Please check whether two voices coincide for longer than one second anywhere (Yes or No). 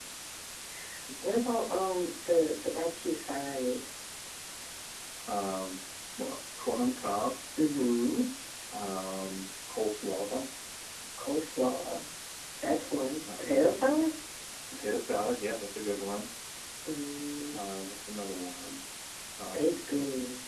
No